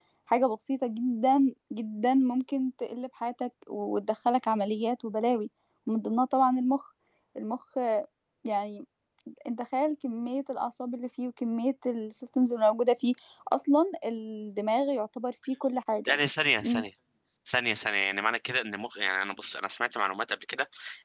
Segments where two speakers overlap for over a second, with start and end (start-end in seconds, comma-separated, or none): none